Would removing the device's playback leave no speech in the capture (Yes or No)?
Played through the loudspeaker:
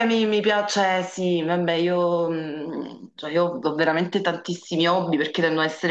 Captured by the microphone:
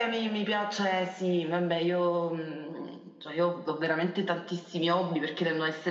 Yes